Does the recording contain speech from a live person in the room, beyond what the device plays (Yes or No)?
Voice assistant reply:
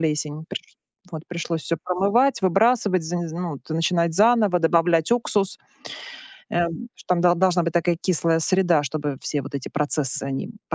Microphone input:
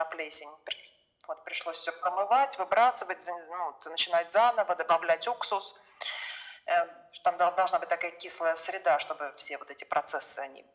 No